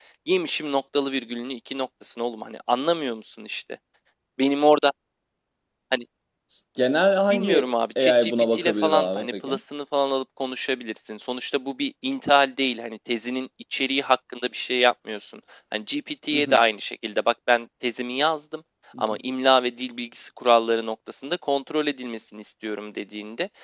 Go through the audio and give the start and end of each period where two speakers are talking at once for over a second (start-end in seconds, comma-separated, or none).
7.3-9.6